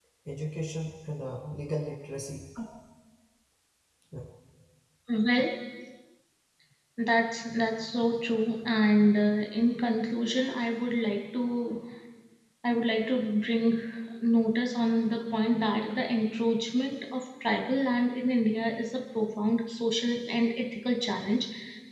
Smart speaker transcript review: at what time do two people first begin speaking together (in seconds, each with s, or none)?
none